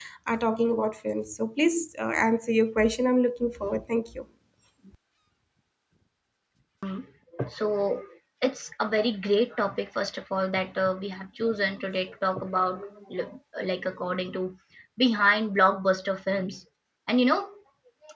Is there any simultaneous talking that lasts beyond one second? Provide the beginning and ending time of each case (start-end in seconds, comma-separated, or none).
none